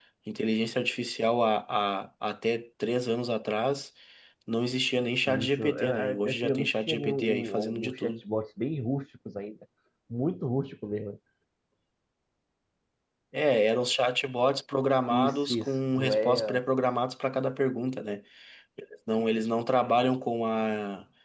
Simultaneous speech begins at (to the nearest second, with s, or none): 5 s